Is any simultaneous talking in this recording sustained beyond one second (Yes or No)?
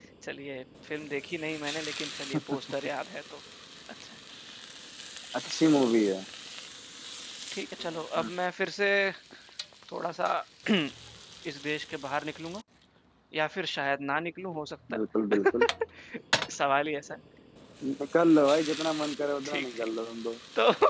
No